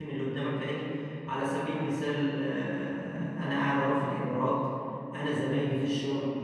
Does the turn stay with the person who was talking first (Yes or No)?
Yes